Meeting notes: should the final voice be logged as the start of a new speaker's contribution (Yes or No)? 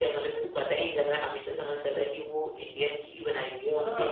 Yes